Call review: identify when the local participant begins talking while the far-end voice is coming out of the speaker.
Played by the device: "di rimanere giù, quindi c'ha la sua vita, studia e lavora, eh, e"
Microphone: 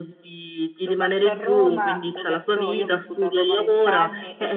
0.8 s

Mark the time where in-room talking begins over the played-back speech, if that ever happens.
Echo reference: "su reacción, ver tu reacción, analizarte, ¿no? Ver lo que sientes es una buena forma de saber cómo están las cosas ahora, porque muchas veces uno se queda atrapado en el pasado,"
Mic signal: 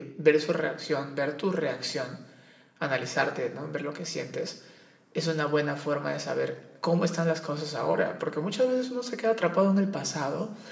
none

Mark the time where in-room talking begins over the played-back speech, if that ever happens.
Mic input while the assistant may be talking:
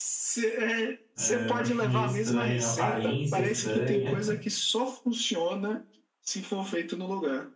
1.1 s

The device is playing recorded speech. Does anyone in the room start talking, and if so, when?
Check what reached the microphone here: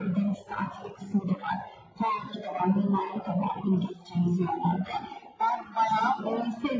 none

